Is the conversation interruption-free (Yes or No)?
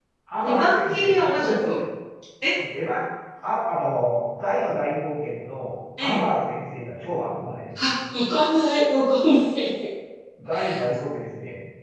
No